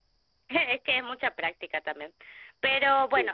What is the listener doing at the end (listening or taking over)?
listening